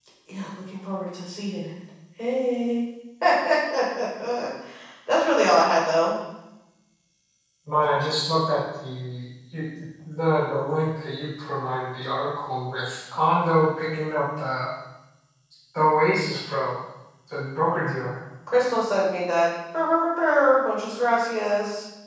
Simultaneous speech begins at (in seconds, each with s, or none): none